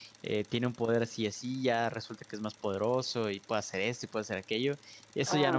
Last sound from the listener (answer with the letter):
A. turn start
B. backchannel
A